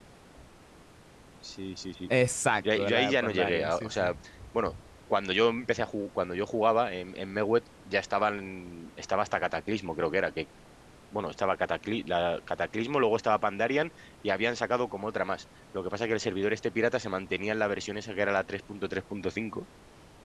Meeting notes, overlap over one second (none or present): present